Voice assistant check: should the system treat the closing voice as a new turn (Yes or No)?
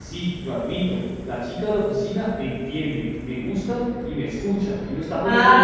Yes